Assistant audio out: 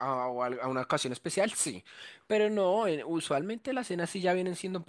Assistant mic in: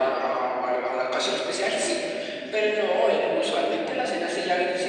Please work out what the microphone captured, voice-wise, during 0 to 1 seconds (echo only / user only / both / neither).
echo only